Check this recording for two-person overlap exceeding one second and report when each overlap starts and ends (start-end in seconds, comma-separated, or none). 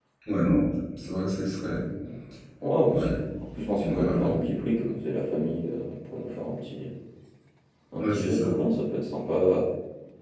none